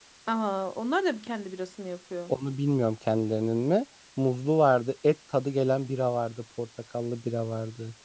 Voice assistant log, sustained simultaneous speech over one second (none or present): none